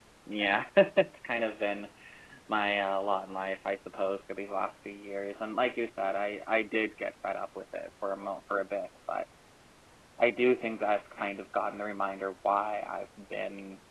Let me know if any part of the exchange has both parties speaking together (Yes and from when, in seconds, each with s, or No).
No